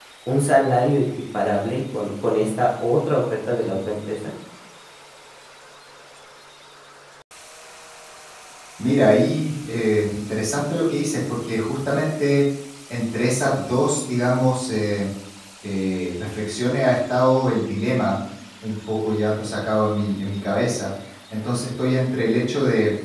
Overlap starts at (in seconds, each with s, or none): none